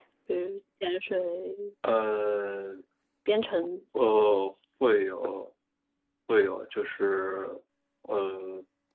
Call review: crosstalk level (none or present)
none